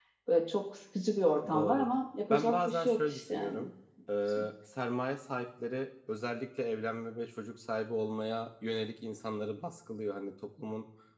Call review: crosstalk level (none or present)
present